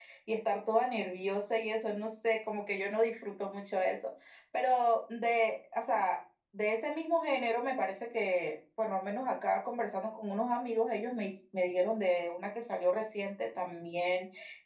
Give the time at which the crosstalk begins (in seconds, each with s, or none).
none